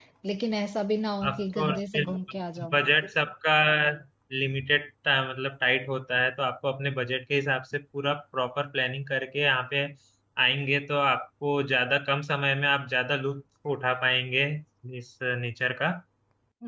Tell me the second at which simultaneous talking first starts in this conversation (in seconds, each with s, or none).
1.3 s